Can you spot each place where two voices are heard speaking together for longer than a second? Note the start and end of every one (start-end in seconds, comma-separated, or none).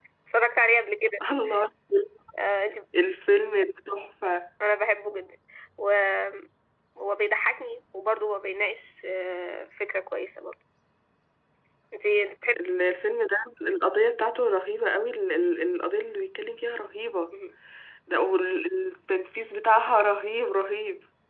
none